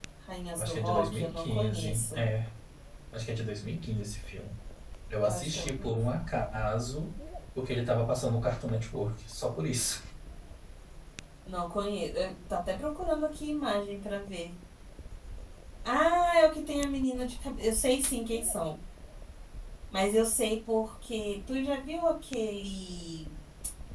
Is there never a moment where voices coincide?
No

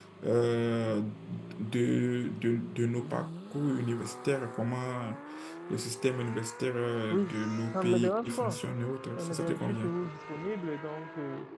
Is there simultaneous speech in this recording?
Yes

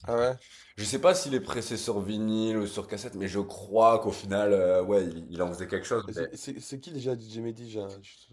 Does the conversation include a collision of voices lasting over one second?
No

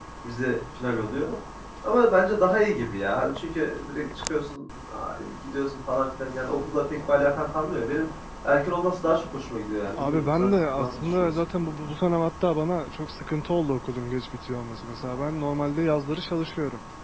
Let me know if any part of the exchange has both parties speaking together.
Yes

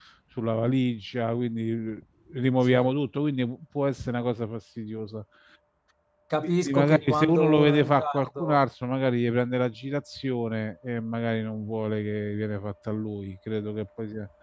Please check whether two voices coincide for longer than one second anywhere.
Yes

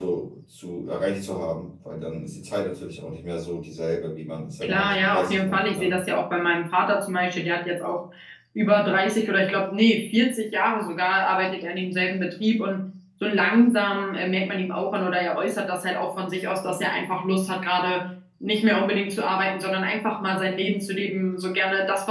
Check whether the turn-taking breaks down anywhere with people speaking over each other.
Yes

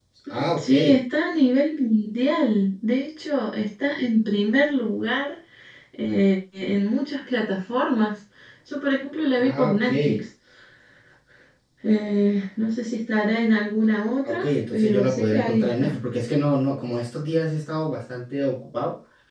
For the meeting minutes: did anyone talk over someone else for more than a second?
Yes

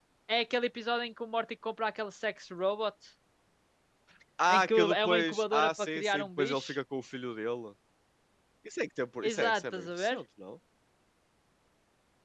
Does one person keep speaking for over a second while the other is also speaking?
Yes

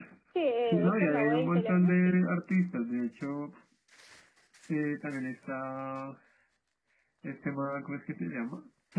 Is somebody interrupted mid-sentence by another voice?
Yes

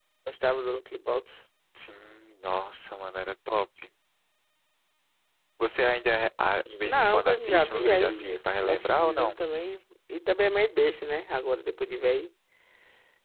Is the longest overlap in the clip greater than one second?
Yes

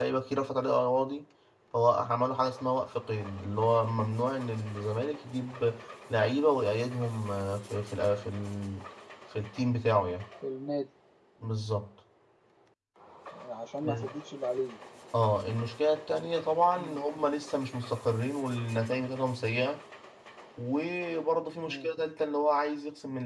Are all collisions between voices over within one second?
Yes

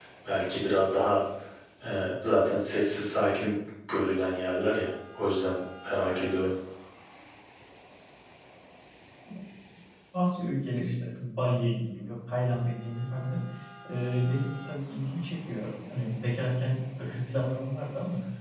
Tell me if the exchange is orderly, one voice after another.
Yes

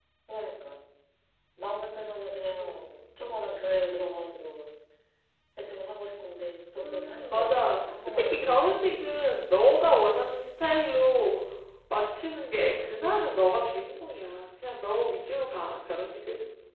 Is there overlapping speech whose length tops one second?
Yes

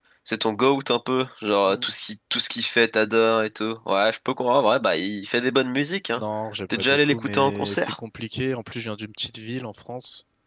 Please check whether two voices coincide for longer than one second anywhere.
Yes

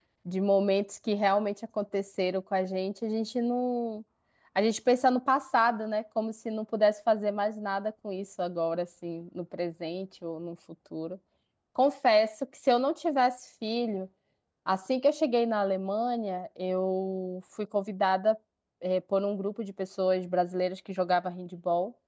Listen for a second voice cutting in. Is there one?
No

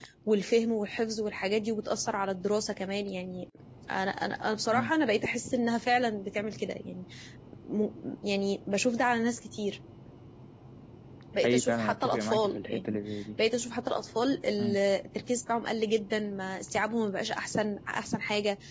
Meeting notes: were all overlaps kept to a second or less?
No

